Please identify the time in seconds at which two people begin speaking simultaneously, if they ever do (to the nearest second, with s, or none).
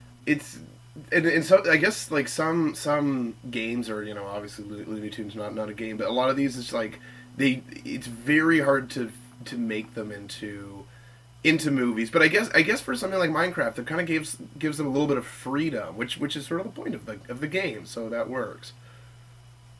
none